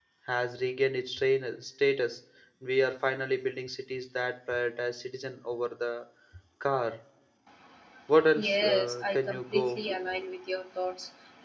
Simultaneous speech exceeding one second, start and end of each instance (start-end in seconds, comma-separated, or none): 8.4-9.8